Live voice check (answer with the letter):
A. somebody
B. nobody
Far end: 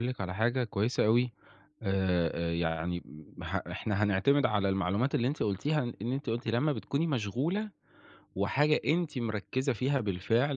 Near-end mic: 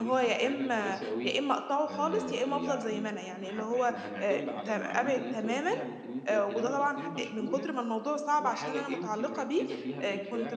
A